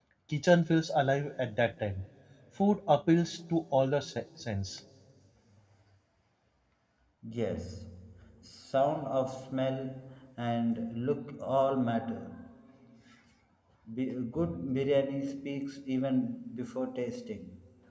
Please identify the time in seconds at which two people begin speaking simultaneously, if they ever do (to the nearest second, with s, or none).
none